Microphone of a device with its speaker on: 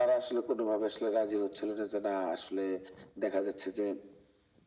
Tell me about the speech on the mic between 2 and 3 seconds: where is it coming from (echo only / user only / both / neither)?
echo only